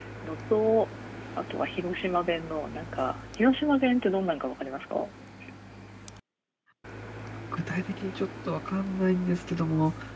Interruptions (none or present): none